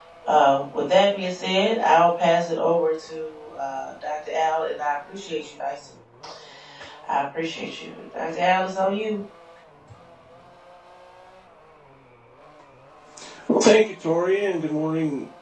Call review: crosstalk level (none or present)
none